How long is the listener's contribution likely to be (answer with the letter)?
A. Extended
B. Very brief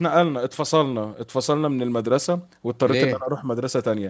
B